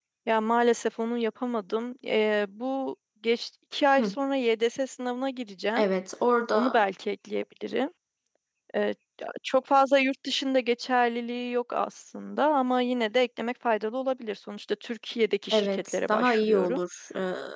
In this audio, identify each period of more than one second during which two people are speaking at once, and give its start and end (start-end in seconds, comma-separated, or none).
15.5-16.8